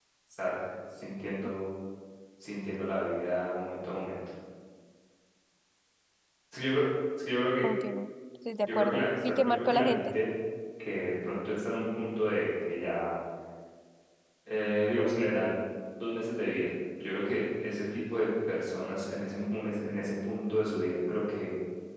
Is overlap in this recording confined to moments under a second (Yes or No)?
No